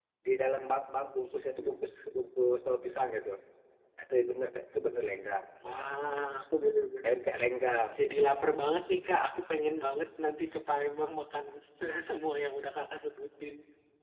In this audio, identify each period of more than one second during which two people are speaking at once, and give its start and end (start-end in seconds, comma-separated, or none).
none